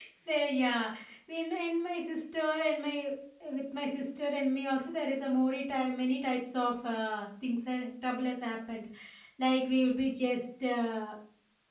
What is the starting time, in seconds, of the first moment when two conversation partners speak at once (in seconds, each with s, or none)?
none